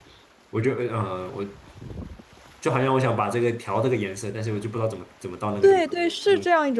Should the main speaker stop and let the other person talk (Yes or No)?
Yes